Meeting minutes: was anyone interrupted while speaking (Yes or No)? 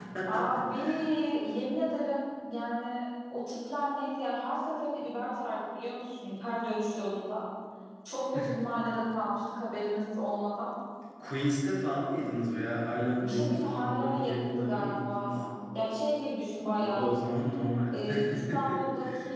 Yes